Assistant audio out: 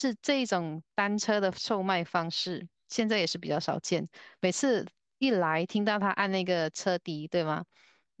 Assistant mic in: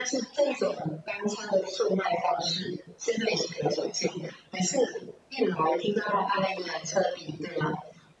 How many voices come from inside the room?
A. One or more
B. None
B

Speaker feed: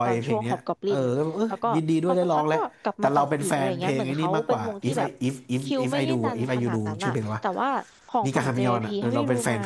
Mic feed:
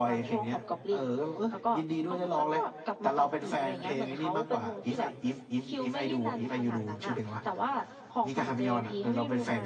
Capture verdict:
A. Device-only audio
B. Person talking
A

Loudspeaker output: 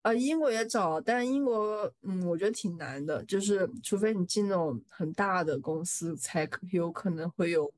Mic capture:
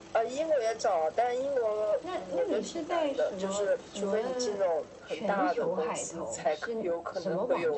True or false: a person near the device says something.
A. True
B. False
A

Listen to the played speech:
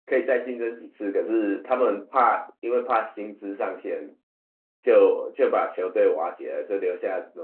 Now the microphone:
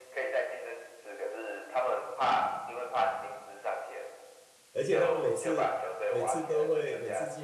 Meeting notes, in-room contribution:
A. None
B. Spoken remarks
B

